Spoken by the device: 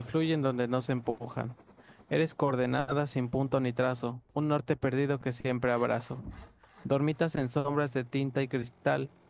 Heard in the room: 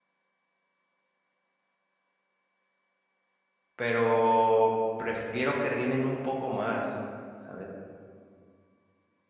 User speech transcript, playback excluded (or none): pero prefiero que rimen un poco más, ¿sabes?